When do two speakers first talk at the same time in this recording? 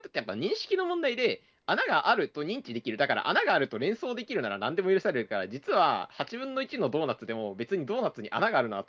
none

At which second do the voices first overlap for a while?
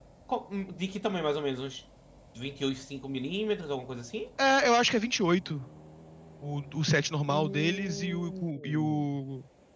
7 s

